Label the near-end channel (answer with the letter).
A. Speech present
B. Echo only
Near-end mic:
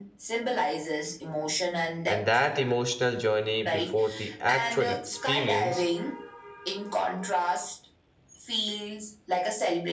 A